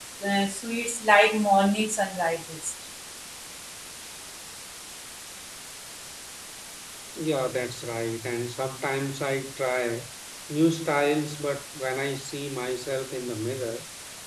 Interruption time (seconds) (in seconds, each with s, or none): none